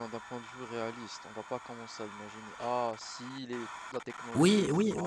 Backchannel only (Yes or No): No